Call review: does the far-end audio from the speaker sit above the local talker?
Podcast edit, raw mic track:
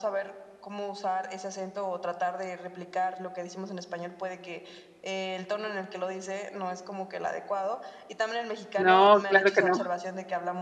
No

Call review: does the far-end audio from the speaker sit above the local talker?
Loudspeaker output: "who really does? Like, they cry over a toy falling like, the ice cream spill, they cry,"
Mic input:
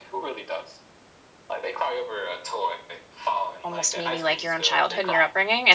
No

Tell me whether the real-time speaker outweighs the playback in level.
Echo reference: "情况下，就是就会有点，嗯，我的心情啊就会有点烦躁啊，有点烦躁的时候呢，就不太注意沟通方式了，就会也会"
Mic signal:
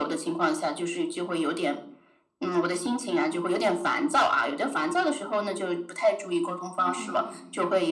No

